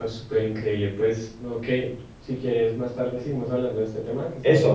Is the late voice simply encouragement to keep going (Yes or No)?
No